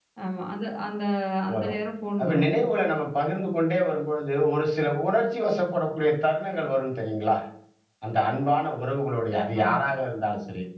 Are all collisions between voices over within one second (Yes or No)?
Yes